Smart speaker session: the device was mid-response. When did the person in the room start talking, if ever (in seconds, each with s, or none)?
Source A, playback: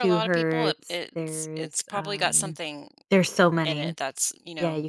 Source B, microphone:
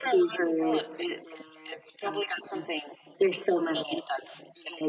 none